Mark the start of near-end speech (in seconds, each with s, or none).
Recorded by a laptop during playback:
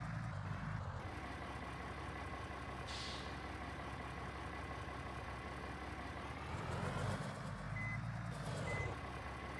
none